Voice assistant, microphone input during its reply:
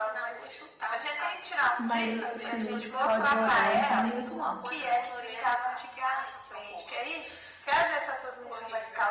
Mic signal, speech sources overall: both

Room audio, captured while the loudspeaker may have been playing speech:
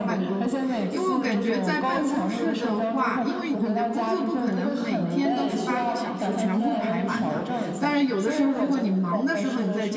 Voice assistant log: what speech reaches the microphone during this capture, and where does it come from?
both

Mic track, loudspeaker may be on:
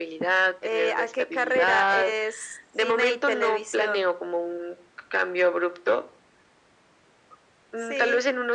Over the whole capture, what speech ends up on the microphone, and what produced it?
echo only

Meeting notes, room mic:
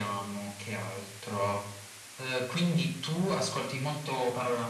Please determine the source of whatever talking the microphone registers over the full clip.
echo only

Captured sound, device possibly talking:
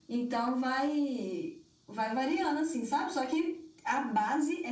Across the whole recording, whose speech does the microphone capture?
echo only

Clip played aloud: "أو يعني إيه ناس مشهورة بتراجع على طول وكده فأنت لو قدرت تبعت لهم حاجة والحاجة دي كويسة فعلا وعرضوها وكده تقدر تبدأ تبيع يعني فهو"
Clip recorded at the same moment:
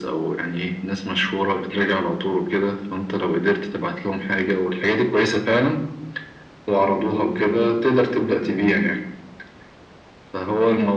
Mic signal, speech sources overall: echo only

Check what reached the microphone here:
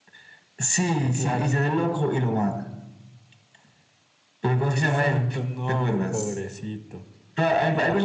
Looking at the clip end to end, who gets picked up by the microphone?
echo only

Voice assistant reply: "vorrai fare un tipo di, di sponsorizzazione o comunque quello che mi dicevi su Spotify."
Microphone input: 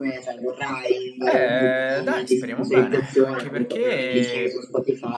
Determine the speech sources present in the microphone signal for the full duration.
both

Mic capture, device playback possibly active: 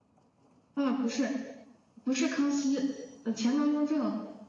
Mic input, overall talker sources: echo only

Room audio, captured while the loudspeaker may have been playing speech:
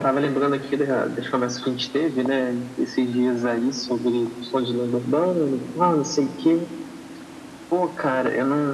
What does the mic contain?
echo only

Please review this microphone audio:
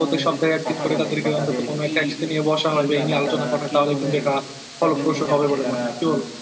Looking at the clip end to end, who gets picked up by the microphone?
both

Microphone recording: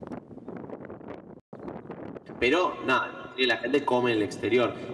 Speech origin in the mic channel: user only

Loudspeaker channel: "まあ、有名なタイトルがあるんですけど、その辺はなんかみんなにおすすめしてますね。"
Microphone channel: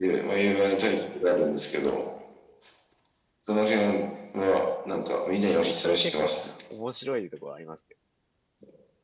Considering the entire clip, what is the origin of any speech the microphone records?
both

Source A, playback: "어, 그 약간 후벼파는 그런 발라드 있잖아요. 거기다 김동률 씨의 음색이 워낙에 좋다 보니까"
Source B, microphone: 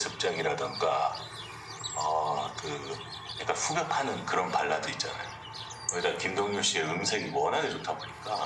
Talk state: echo only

